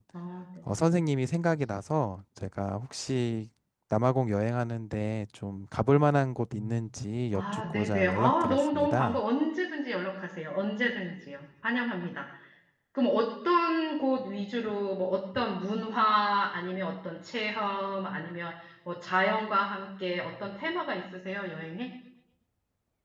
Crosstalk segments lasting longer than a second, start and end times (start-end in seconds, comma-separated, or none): 7.3-9.2